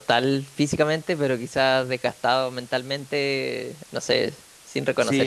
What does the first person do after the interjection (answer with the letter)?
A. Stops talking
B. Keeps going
A